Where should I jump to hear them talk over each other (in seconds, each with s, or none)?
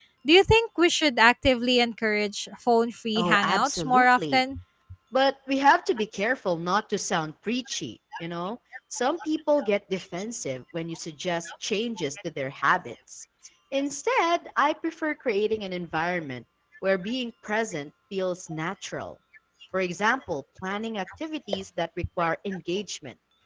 3.2 s